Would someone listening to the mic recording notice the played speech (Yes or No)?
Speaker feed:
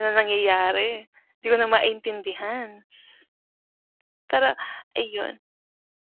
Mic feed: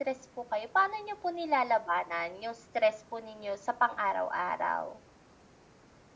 No